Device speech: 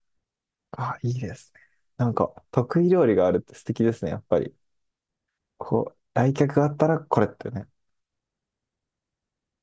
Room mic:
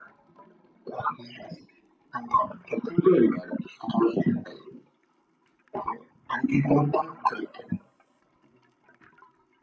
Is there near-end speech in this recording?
No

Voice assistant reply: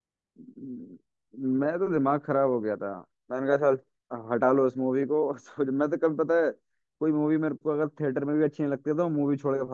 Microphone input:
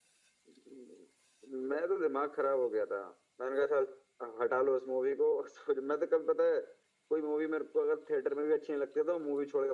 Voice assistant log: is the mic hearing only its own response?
Yes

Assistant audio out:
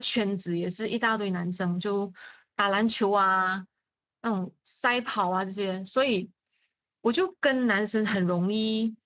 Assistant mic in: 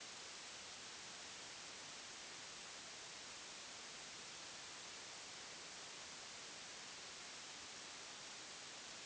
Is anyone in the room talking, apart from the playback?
No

